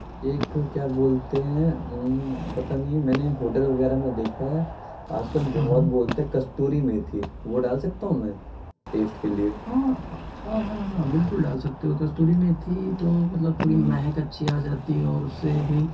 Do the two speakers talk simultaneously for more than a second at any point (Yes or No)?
No